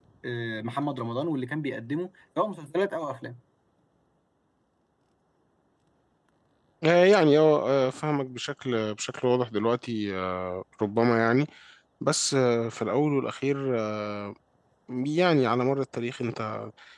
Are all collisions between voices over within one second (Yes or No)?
Yes